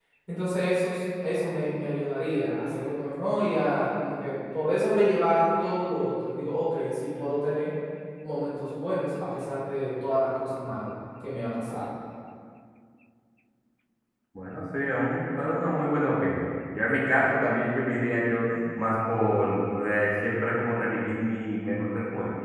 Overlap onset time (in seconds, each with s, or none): none